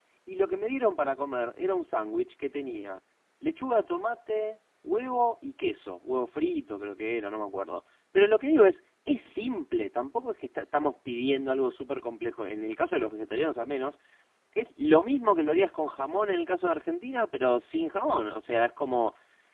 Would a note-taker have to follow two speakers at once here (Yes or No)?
No